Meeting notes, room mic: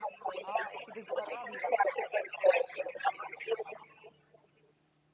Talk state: both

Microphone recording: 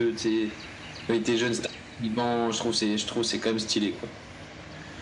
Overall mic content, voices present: echo only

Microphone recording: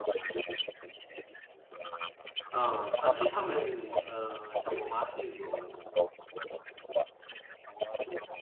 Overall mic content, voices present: both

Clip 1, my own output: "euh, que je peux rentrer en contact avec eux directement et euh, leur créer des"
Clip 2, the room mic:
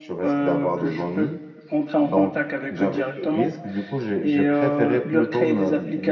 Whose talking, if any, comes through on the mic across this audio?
both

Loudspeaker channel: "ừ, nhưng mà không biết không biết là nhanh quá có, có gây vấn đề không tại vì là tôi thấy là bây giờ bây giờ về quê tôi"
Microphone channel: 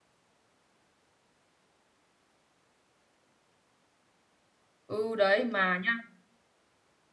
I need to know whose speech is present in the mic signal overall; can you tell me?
user only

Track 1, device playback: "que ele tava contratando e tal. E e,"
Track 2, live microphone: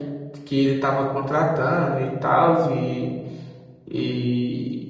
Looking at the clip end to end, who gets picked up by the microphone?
echo only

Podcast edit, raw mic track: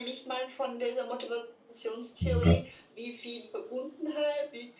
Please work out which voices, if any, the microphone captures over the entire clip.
both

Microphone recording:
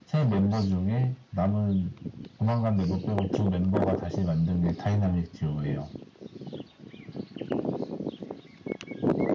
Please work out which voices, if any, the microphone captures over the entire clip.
echo only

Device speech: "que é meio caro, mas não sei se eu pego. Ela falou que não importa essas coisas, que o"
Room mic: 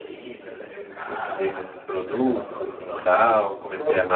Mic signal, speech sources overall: both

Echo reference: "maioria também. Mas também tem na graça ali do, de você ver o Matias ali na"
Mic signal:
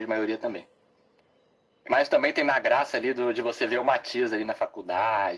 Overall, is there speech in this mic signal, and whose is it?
echo only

